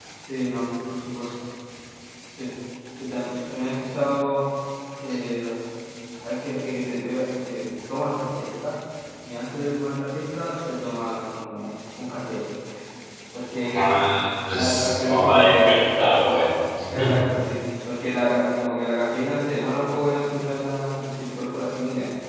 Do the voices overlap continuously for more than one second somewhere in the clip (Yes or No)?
Yes